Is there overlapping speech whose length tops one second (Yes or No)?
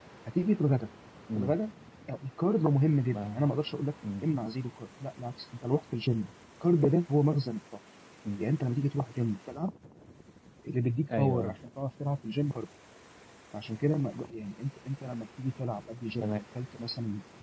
No